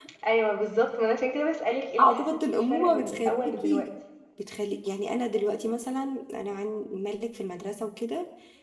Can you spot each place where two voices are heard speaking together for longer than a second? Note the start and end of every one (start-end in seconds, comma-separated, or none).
2.0-3.9